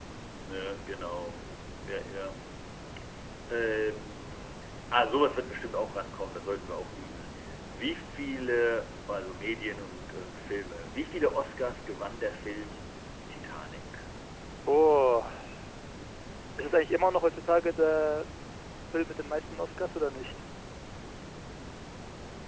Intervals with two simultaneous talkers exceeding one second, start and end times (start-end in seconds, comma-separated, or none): none